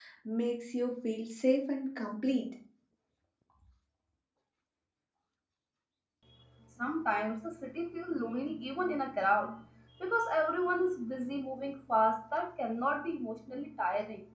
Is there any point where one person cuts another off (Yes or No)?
No